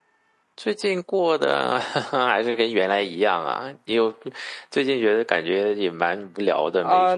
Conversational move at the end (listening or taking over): taking over